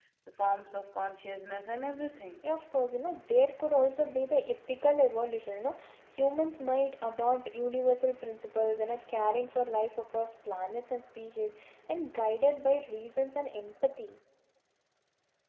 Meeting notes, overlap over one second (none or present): none